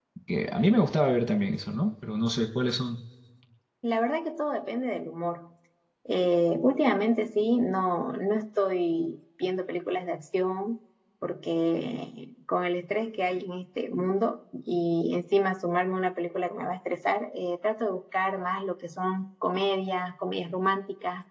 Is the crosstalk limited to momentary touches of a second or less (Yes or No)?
Yes